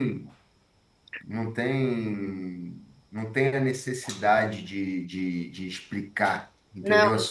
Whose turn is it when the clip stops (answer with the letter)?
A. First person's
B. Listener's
B